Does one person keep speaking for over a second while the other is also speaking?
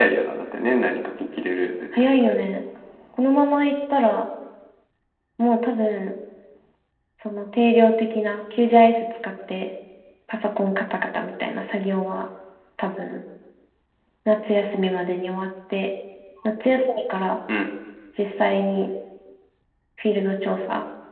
No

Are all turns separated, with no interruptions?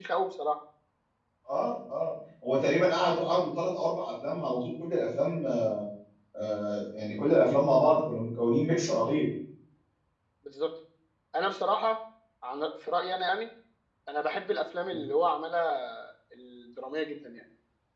Yes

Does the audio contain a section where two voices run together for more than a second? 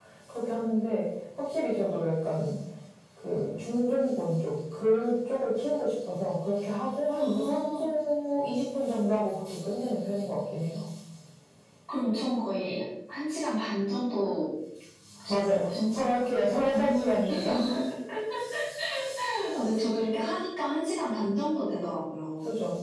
Yes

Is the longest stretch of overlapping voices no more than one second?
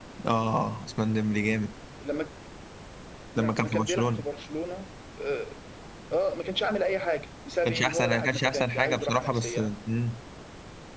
No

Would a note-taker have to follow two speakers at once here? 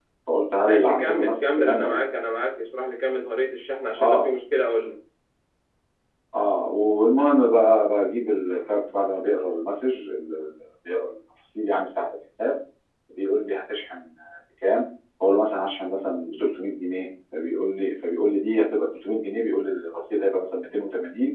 Yes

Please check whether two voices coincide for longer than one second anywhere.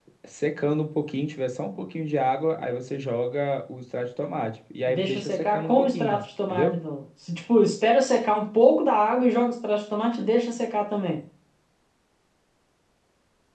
Yes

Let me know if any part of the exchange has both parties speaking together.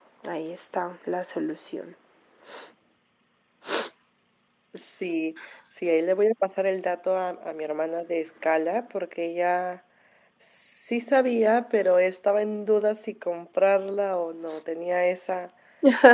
No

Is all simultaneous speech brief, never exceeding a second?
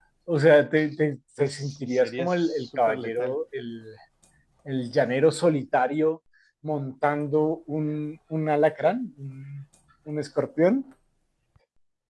No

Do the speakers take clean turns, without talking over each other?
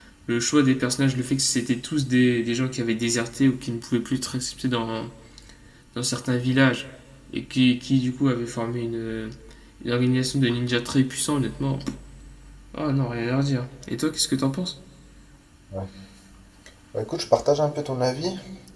Yes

